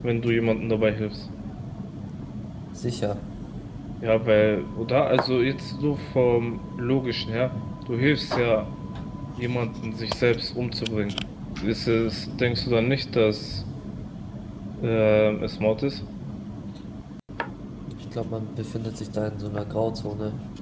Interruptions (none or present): none